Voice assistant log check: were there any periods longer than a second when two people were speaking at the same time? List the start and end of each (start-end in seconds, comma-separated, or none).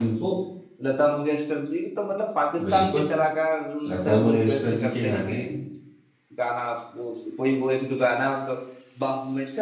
3.9-5.4